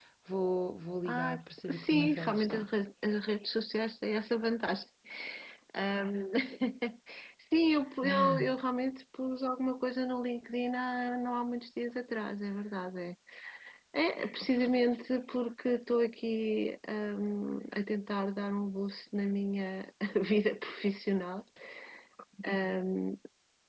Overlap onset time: 1.0 s

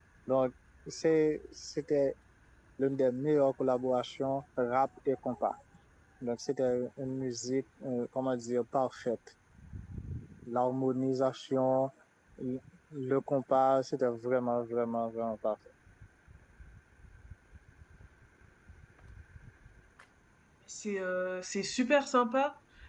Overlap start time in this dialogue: none

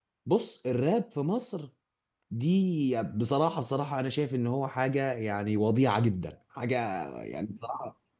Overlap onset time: none

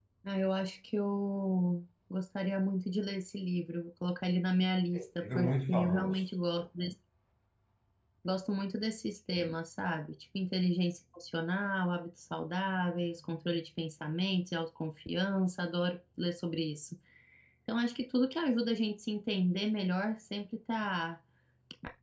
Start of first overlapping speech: 4.9 s

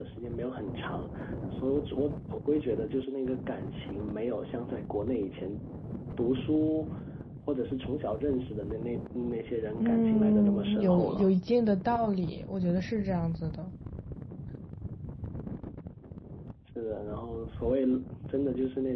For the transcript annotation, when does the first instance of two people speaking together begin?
9.8 s

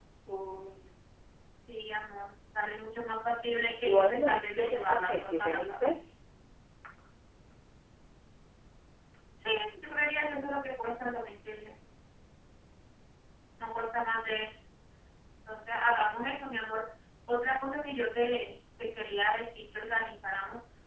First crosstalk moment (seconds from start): 3.9 s

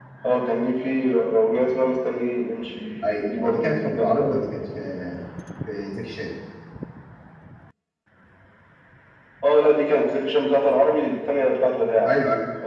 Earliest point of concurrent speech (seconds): 3.0 s

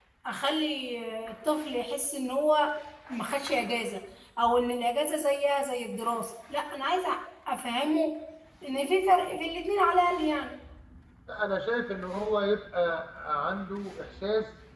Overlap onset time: none

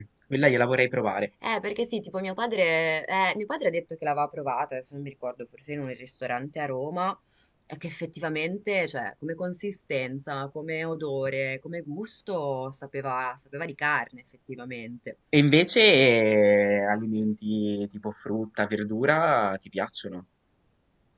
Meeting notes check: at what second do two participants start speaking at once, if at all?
none

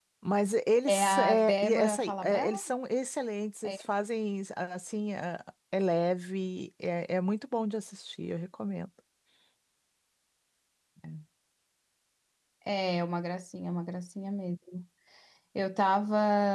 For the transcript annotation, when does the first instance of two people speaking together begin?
0.9 s

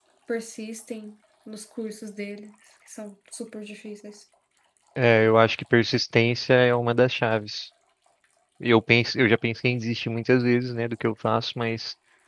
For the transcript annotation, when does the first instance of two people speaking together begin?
none

